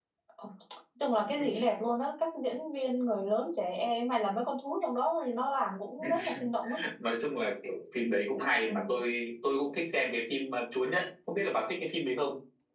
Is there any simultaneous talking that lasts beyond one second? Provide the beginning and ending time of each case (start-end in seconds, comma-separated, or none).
none